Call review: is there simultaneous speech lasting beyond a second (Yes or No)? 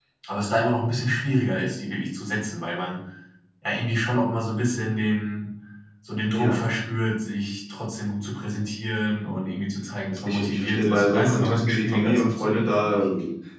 Yes